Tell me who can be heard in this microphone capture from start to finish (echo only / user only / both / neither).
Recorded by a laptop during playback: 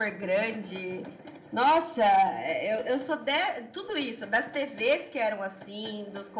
echo only